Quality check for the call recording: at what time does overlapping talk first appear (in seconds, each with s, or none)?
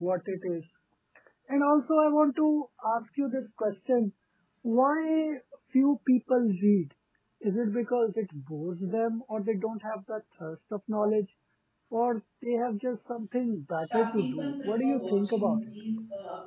13.8 s